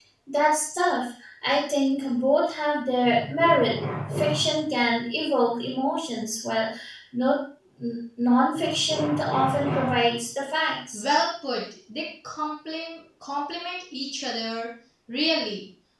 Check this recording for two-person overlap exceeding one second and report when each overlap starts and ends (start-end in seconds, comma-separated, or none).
none